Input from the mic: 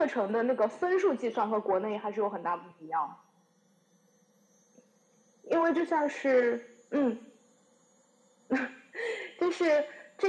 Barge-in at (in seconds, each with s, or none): none